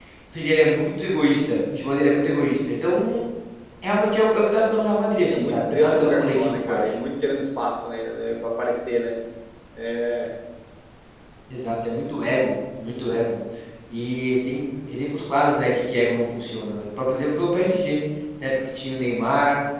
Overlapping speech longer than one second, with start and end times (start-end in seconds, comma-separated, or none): 5.3-6.8